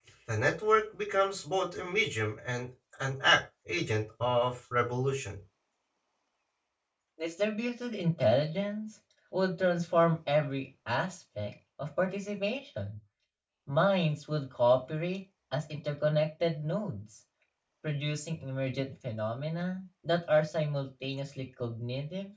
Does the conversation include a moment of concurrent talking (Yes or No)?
No